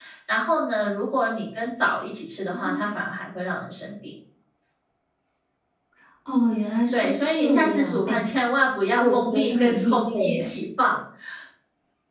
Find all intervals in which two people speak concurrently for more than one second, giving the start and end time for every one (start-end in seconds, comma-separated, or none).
6.9-8.1, 9.0-10.5